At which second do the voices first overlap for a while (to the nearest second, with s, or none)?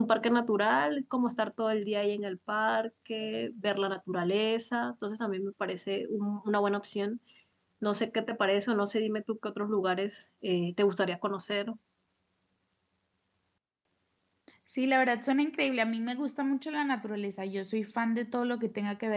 none